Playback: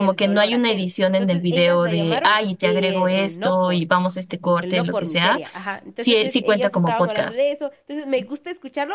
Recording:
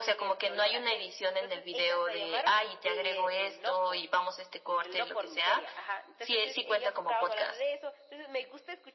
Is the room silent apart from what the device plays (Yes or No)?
Yes